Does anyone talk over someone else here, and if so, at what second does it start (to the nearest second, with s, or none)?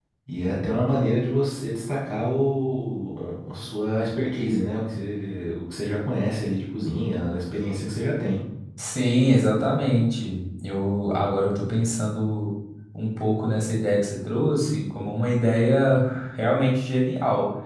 none